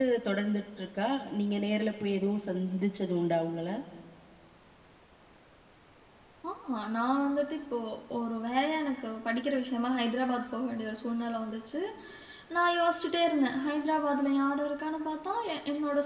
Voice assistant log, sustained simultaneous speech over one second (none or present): none